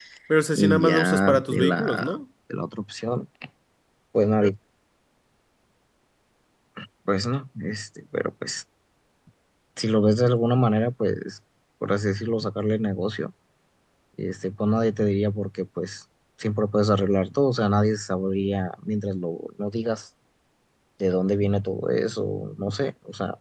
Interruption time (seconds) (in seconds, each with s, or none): 0.6 s